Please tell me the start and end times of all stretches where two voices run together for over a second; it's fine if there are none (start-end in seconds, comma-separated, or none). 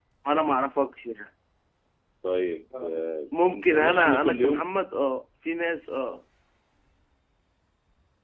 3.3-4.7